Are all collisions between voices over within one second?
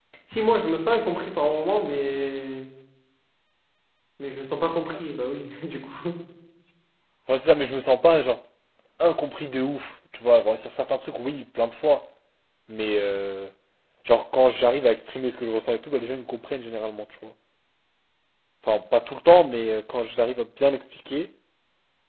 Yes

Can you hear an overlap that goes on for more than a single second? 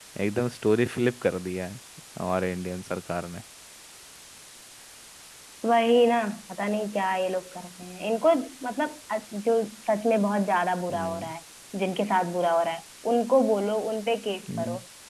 No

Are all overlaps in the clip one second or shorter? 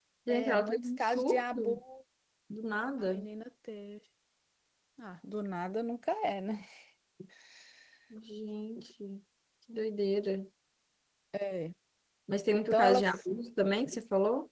No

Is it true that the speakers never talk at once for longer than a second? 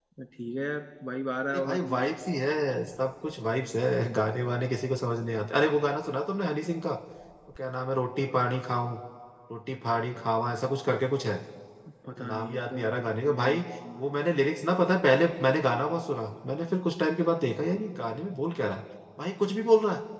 No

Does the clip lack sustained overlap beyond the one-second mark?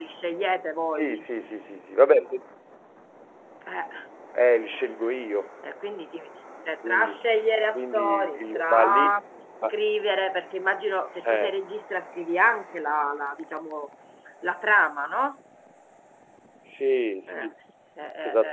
No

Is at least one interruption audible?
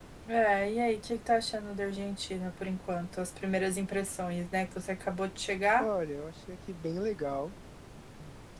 No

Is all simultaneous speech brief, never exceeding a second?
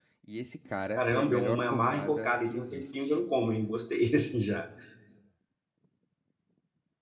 No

